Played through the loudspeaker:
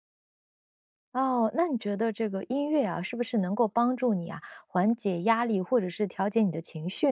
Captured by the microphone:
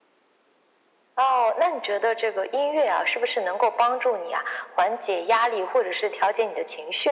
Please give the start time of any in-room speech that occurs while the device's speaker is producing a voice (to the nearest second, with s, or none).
none